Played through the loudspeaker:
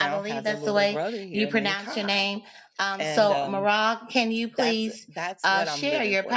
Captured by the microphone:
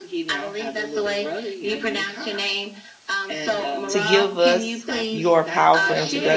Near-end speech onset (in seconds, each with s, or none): 3.9 s